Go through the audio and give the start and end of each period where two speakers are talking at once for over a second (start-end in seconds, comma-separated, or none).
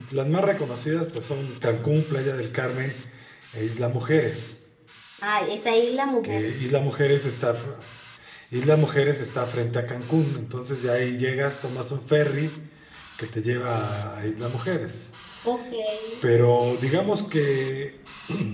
none